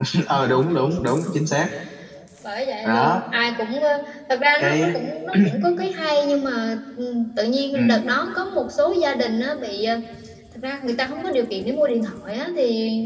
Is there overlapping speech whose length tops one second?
No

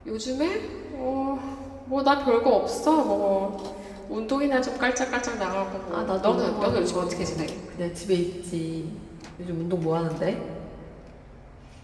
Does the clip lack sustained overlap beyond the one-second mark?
No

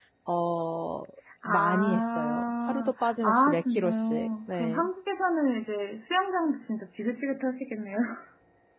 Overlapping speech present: Yes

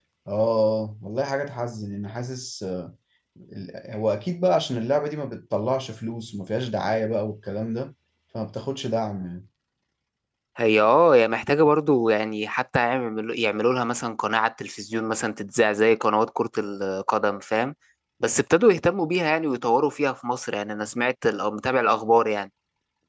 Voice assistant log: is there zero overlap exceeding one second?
Yes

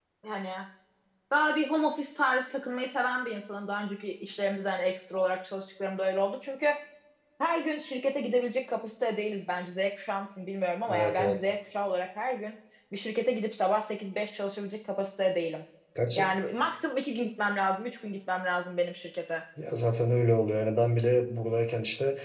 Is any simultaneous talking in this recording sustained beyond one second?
No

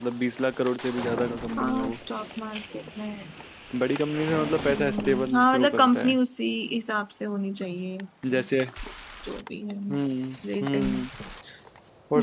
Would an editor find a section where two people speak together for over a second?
Yes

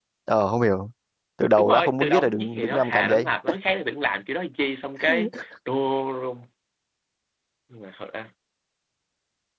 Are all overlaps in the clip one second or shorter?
No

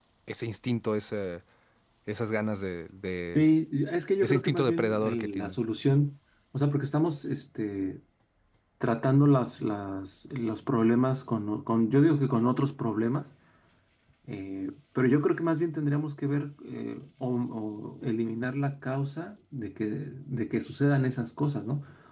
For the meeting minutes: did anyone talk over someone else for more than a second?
Yes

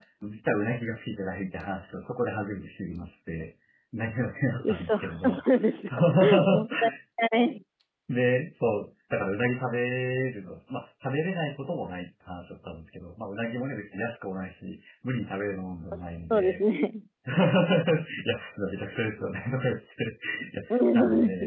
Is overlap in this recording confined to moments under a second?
No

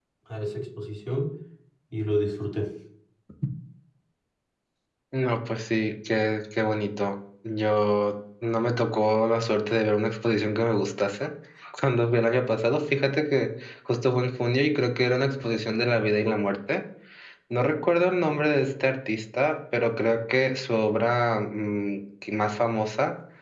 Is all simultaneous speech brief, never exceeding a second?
Yes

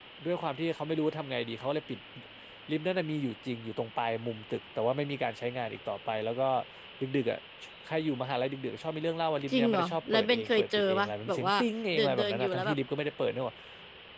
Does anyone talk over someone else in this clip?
Yes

